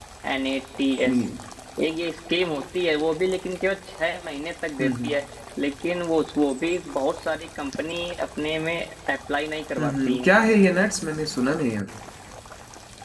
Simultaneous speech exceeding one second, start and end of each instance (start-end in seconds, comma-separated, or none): none